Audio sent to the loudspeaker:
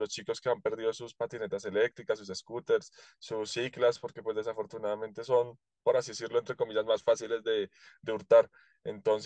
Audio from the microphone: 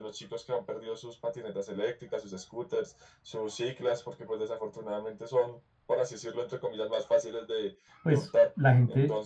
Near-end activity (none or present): present